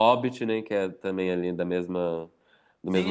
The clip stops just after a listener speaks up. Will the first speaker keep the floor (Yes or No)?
No